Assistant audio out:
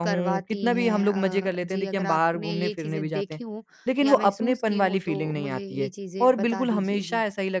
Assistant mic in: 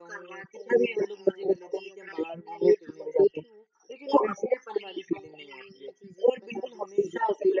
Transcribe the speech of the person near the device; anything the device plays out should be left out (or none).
none